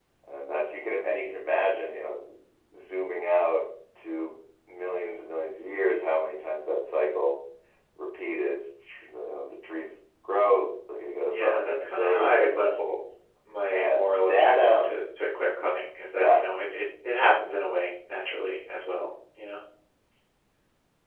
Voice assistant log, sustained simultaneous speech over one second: present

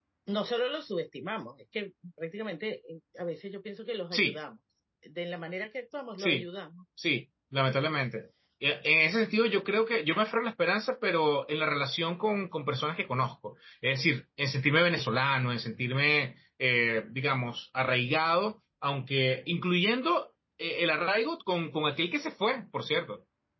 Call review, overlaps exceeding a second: none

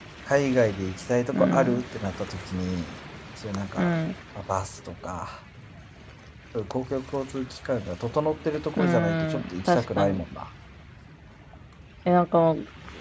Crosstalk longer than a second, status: present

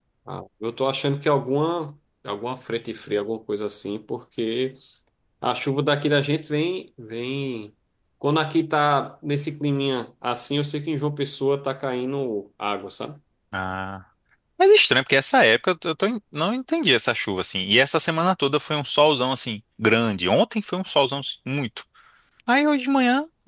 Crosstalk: none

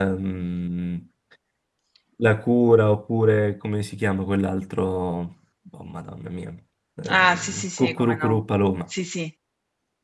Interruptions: present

